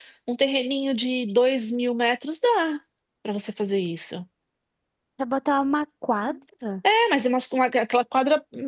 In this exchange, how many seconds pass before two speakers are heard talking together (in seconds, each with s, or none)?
none